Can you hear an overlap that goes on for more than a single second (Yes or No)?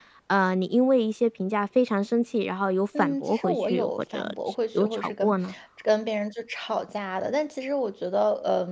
Yes